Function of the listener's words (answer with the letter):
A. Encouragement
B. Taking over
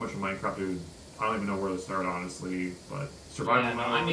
B